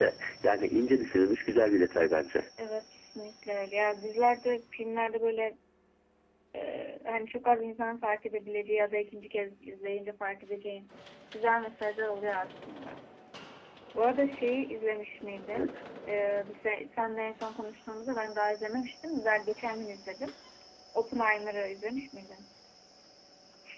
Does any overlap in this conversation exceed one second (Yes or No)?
No